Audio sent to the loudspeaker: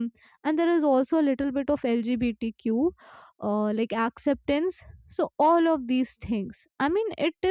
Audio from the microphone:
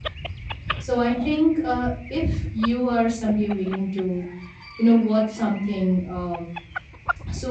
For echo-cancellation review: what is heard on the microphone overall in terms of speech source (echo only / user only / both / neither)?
user only